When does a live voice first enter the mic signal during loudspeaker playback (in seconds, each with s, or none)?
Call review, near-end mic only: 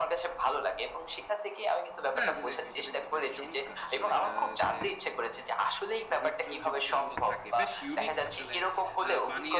2.1 s